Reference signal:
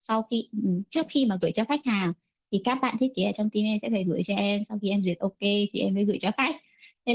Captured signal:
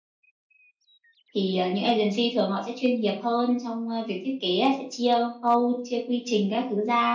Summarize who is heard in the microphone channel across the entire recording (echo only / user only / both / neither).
user only